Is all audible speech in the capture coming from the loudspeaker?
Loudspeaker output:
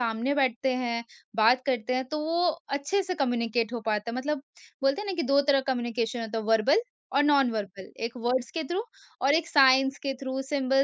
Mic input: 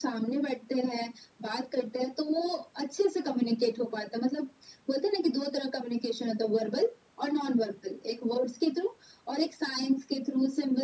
Yes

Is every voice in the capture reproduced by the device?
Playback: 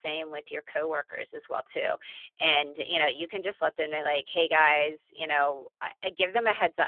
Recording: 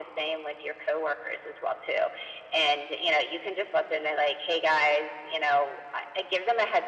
Yes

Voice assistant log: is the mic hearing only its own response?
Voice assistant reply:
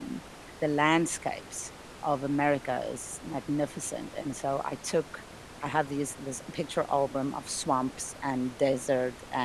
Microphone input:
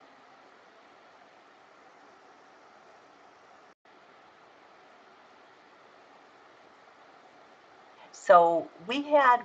No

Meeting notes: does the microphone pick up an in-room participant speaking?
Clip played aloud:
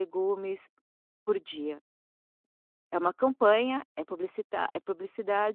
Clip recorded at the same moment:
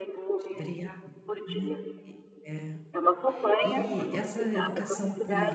Yes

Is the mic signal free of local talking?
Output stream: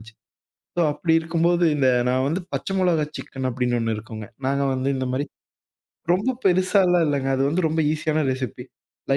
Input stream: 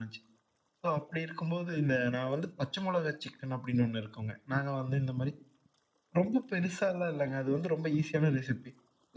Yes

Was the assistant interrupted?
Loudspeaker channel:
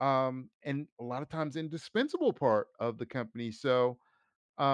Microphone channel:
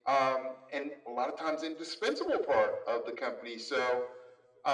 No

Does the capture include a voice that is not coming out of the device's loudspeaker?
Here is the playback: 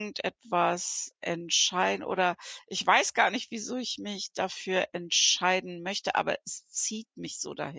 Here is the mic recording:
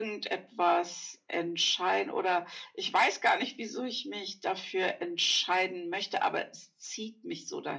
No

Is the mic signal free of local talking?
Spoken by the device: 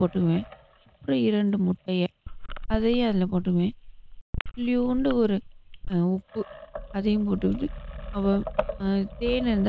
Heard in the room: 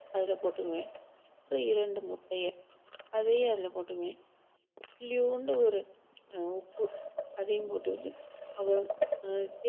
Yes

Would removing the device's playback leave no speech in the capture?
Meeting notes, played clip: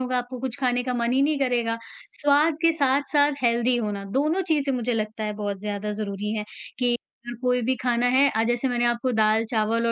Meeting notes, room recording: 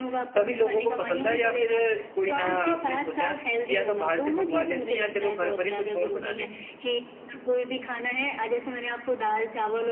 No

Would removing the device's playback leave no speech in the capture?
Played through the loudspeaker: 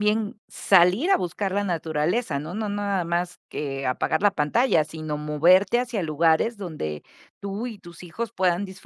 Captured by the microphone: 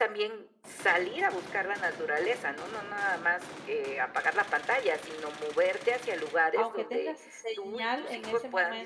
No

